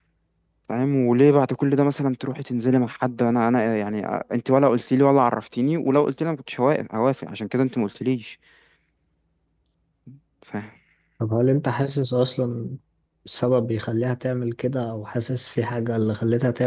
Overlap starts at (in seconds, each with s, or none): none